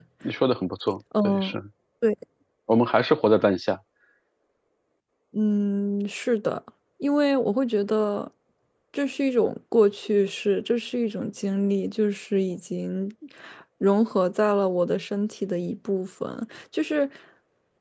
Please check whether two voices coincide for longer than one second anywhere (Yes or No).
No